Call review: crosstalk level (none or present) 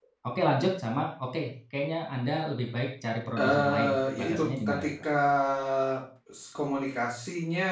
present